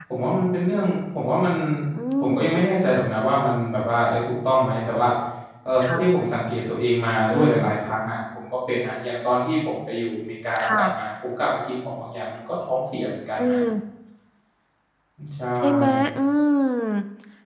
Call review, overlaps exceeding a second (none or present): none